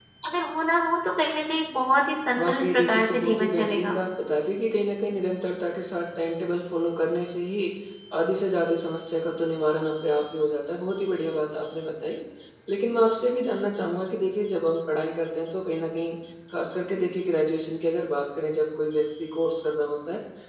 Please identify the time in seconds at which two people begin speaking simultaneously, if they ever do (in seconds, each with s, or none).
2.3 s